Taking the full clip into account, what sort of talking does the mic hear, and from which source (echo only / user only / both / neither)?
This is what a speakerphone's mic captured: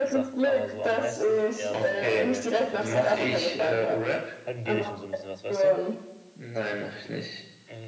both